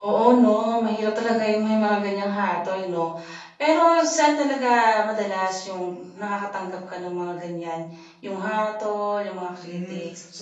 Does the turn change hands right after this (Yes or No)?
Yes